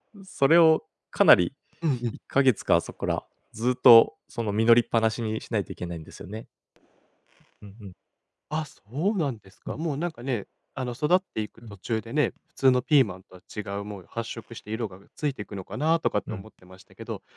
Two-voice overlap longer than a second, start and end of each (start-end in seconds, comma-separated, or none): none